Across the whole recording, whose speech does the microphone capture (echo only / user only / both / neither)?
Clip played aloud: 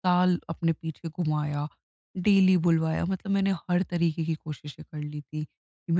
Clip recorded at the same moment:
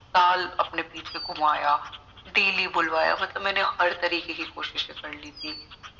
echo only